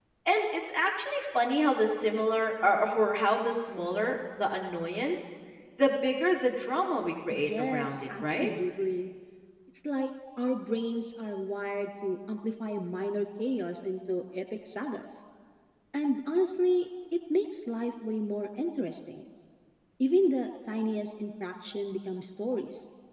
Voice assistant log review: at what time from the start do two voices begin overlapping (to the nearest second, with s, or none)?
7 s